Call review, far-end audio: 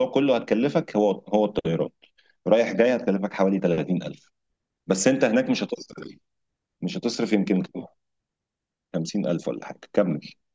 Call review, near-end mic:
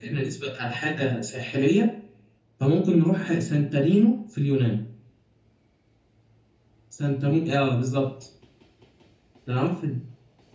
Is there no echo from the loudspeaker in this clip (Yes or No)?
Yes